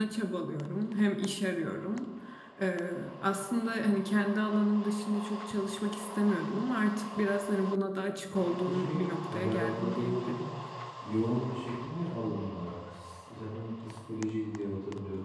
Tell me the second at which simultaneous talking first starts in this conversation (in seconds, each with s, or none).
8.3 s